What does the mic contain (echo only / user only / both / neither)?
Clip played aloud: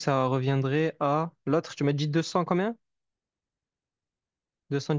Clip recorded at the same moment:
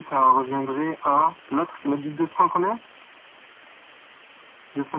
echo only